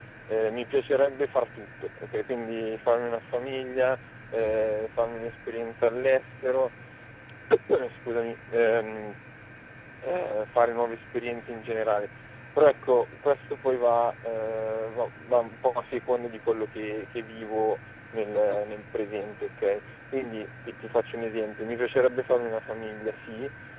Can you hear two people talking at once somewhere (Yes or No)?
No